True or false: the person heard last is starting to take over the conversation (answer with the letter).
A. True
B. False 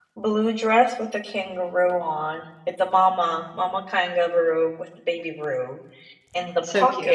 B